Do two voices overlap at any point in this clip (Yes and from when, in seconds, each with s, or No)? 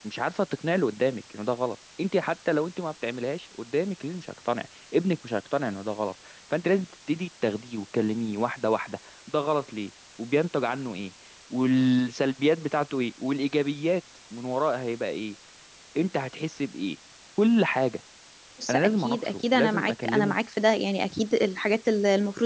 Yes, from 18.7 s